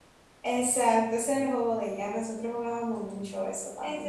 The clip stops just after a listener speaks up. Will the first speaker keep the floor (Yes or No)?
No